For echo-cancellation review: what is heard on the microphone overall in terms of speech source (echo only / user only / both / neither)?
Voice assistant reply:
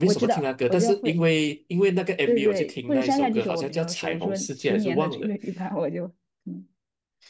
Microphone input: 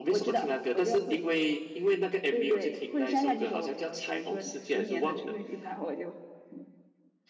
echo only